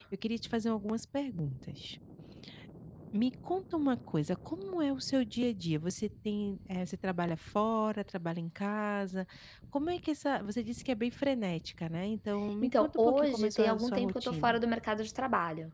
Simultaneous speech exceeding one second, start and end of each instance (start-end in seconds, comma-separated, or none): 12.6-14.6